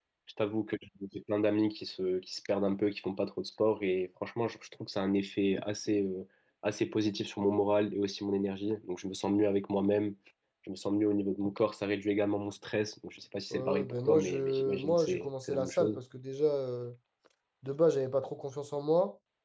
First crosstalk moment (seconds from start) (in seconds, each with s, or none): 13.5 s